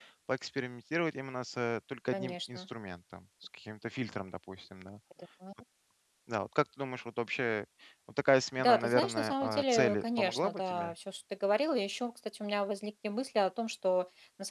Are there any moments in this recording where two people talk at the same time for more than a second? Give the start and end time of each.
8.6-10.9

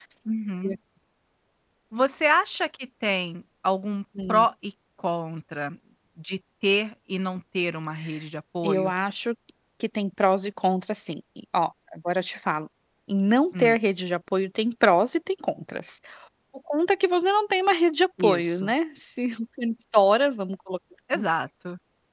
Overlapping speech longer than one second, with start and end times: none

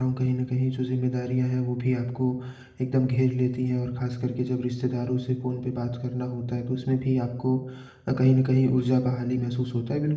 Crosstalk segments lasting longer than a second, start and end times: none

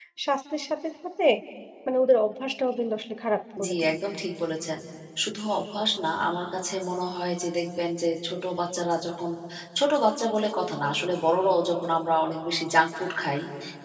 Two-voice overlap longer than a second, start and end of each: none

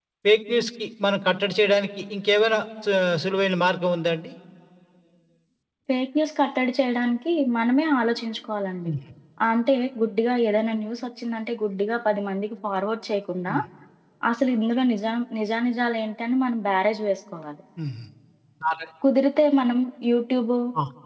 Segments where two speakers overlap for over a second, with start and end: none

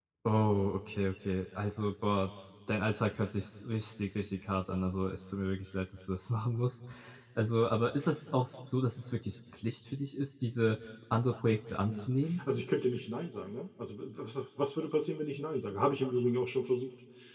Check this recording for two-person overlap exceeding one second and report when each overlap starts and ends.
none

